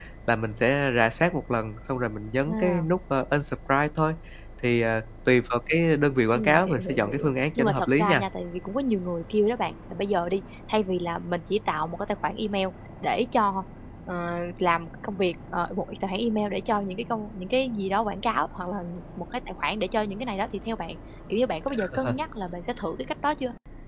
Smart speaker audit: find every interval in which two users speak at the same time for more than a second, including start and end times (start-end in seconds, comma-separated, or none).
6.3-8.2